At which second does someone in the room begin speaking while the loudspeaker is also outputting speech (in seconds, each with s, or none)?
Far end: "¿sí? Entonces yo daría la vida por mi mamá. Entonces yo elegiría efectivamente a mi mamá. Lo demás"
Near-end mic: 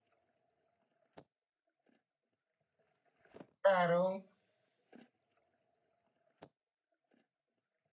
3.6 s